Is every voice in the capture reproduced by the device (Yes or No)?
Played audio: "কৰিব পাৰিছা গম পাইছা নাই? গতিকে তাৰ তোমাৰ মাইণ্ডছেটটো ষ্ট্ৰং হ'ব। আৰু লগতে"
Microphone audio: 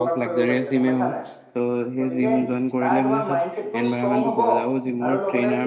No